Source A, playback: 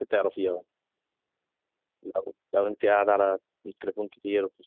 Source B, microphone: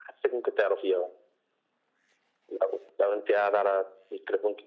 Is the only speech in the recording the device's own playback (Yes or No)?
Yes